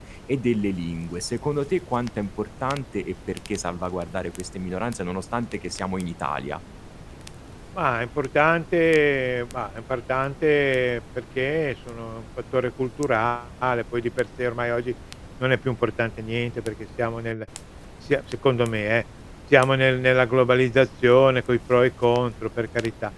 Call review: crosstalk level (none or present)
none